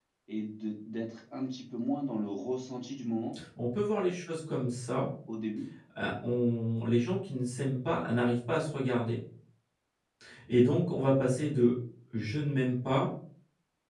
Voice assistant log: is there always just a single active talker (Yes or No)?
Yes